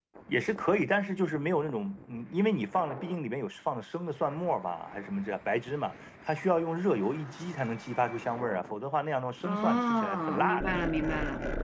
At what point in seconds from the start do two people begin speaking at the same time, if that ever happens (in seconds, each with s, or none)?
9.4 s